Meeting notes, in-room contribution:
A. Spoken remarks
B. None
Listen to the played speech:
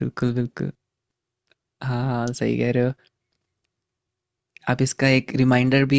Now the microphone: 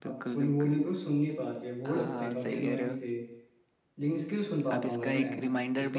A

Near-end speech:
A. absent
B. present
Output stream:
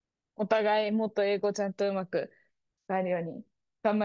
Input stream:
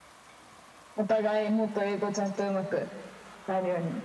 A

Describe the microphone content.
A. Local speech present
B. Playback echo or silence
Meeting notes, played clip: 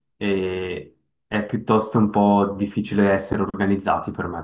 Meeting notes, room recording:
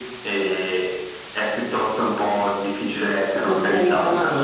A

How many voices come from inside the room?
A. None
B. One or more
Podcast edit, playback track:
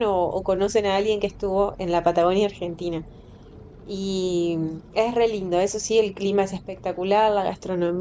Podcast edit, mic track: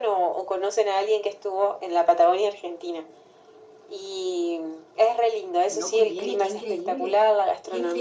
B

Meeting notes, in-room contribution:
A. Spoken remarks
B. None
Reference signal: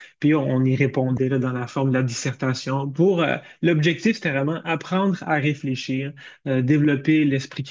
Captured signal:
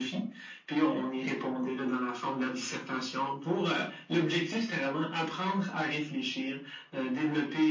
B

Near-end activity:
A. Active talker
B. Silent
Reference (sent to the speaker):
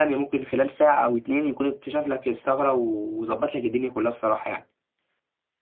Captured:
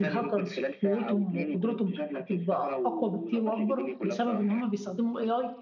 A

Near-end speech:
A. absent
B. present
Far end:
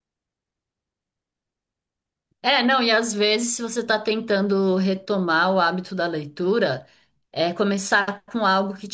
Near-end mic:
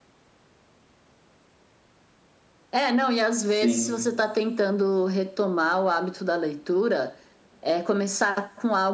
B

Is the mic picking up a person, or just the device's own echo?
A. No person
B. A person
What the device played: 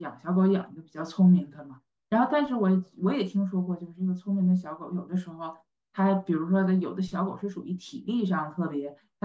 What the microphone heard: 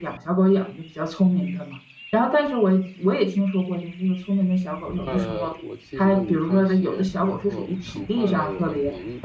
B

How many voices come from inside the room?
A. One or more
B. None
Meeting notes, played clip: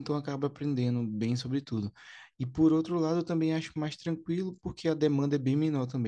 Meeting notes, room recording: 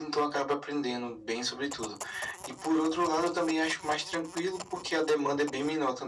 B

